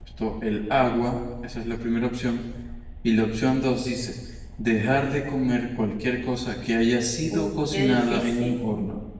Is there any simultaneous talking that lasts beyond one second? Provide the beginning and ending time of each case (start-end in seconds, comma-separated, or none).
7.3-8.6